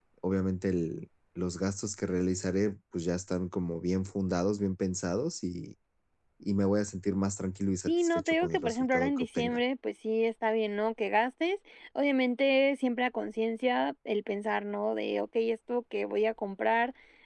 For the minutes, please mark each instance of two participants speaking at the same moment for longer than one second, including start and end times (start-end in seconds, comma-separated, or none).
7.9-9.6